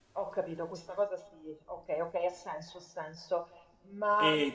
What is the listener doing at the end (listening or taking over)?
taking over